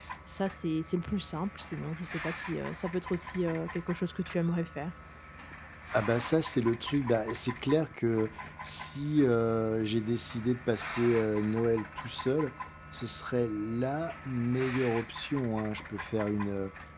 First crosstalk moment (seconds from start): none

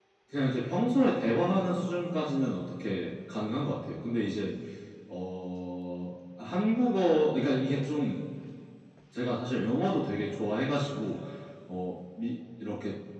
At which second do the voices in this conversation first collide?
none

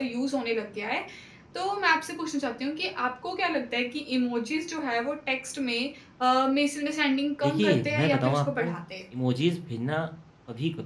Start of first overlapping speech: 7.4 s

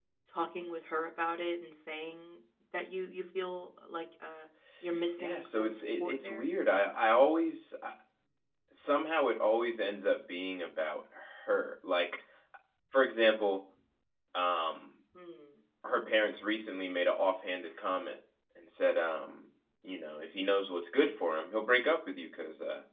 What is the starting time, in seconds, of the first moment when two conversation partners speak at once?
5.2 s

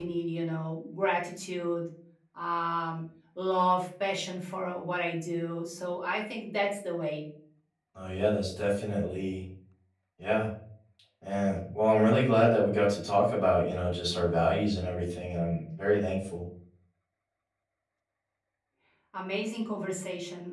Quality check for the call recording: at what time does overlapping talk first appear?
none

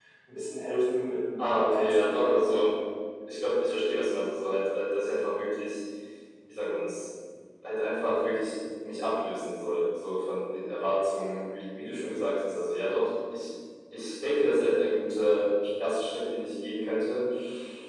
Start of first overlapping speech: 1.4 s

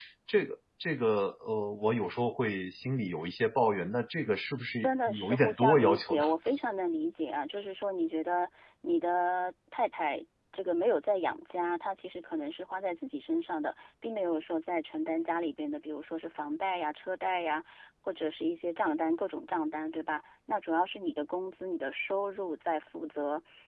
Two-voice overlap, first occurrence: 4.8 s

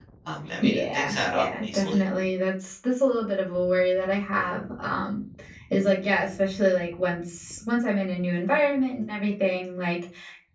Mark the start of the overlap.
0.6 s

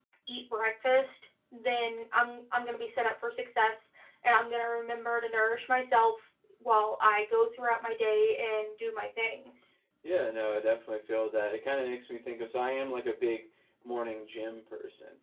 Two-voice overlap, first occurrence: none

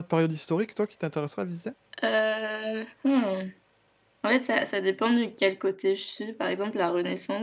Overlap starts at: none

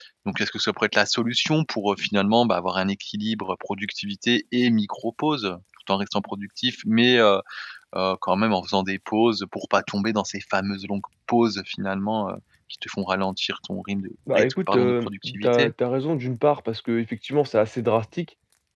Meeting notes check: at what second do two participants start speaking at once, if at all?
14.3 s

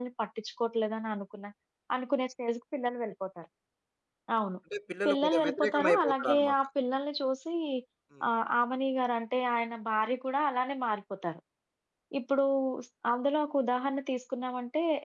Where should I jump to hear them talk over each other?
5.1 s

